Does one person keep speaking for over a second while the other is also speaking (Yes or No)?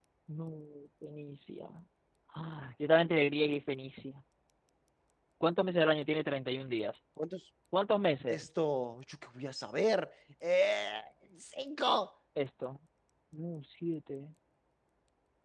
No